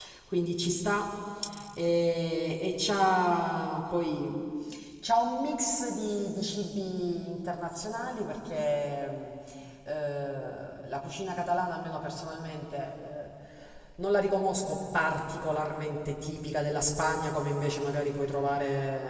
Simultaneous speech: No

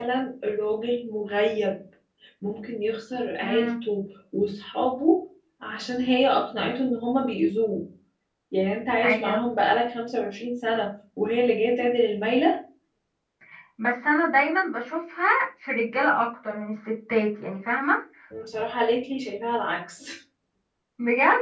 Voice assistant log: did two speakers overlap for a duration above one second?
No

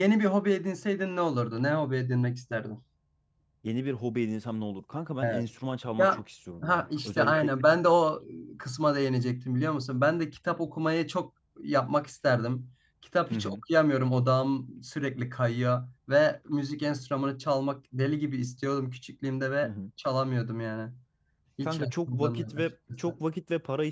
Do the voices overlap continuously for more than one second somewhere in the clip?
Yes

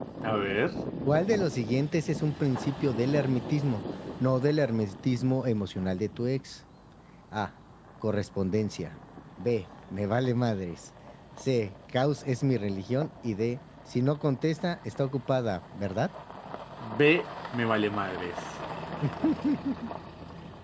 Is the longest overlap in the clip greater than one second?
No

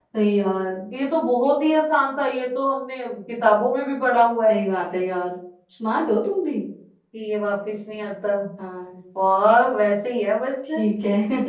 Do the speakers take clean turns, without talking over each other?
Yes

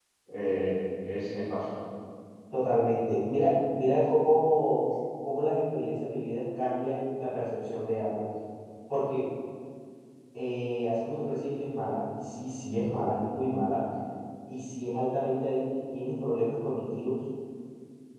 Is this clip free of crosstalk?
Yes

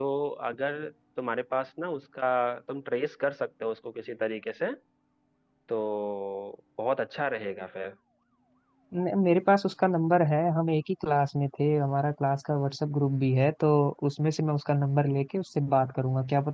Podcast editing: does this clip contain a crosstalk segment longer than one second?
No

